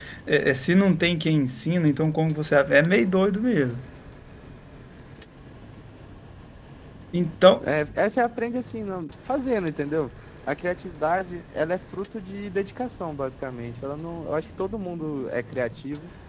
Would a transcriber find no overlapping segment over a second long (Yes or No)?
Yes